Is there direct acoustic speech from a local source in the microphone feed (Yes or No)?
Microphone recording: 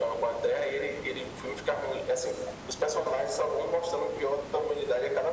No